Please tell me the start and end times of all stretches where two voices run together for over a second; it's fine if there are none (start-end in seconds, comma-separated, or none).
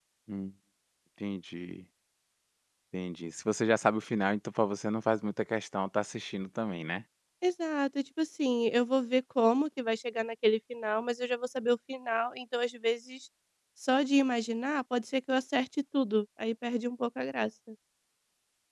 none